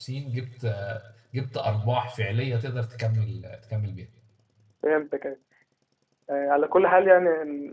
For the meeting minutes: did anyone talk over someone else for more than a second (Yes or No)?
No